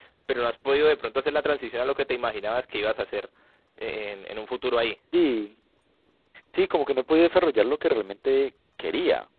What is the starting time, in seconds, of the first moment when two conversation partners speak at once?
none

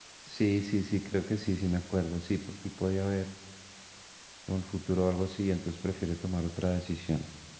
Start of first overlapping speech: none

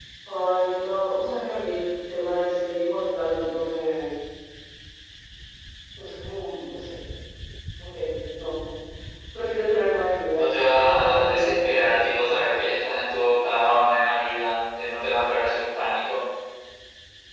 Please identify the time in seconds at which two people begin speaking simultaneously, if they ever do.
10 s

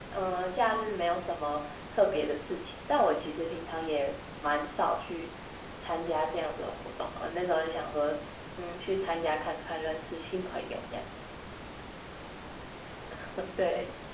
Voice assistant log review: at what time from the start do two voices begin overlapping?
none

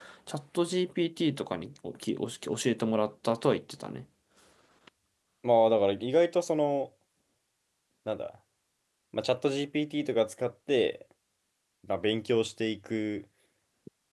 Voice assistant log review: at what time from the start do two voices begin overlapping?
none

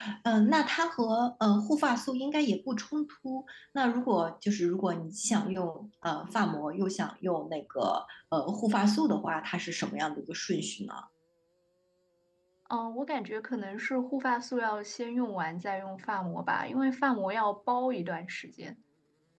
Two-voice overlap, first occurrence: none

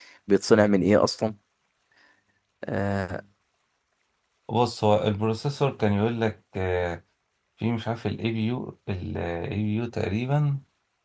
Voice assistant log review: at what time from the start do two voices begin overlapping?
none

